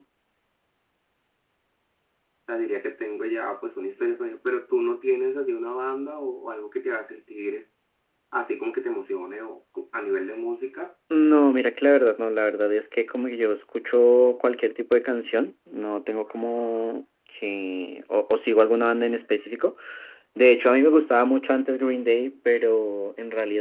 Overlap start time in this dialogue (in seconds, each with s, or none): none